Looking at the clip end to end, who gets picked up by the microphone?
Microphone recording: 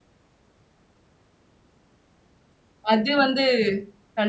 user only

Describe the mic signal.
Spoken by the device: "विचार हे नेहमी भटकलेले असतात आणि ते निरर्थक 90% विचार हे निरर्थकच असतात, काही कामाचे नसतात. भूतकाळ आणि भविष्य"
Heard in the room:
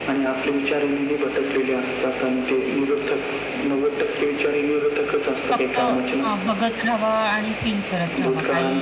both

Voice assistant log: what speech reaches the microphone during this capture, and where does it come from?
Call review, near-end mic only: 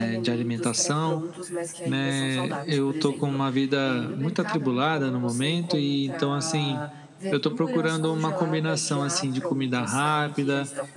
both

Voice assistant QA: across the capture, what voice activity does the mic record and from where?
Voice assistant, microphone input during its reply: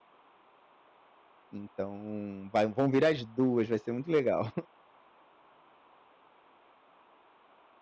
user only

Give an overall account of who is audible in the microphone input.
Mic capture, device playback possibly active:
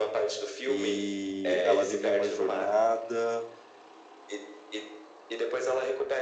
both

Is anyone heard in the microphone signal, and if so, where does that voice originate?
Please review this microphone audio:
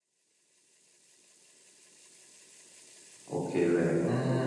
user only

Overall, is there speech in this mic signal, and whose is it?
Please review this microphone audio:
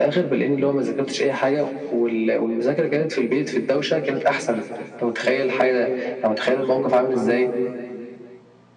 echo only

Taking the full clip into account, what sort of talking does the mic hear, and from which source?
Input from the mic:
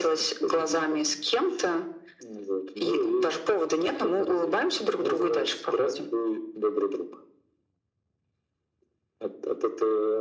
echo only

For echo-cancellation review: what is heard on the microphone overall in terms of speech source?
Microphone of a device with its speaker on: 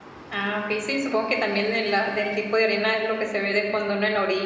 user only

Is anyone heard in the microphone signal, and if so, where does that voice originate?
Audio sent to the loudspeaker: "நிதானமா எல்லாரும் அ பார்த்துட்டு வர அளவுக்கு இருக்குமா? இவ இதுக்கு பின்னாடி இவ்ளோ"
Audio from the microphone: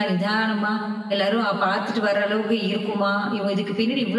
echo only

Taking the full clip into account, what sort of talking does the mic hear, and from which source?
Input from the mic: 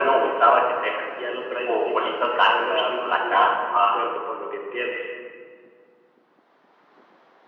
echo only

